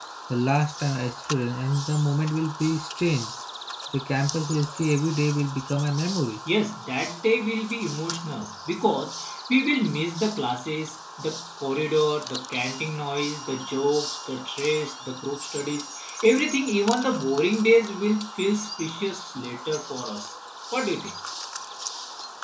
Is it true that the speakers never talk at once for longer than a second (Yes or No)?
Yes